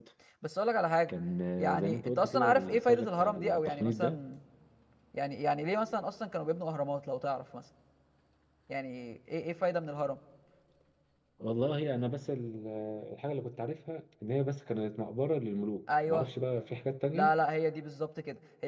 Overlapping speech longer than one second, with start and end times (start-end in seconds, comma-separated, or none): 1.6-4.2